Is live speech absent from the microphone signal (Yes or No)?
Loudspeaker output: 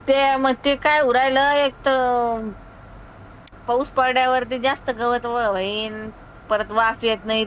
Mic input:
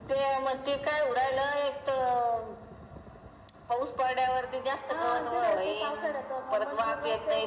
No